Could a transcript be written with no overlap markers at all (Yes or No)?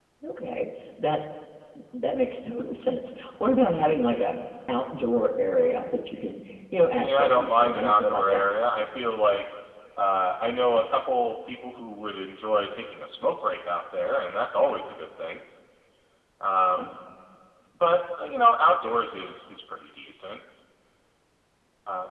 No